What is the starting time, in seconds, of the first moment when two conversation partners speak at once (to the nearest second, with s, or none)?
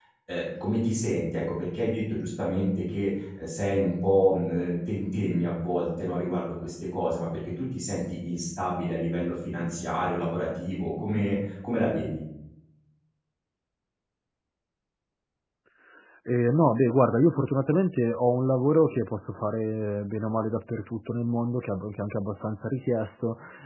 none